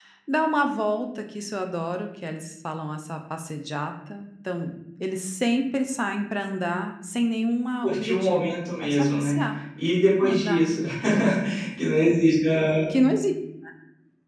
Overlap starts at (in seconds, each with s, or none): 7.8 s